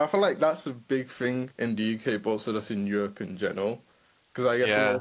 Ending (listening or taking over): listening